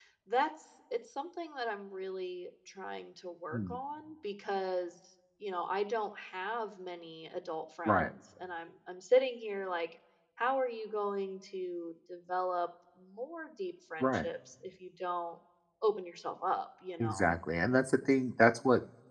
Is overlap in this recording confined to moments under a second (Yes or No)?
Yes